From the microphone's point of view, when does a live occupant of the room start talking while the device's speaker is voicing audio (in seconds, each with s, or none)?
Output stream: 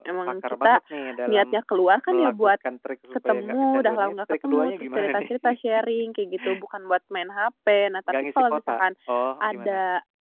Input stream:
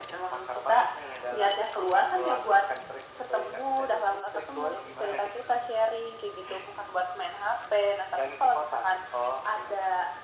none